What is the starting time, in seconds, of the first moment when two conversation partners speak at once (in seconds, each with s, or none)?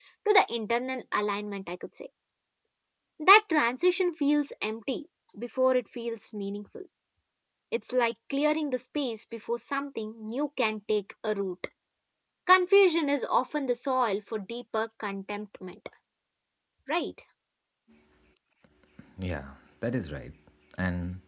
none